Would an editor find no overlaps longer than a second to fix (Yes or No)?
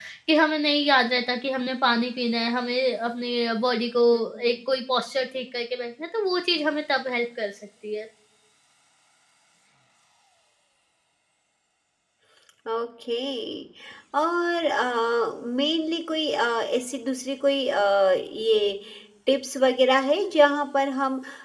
Yes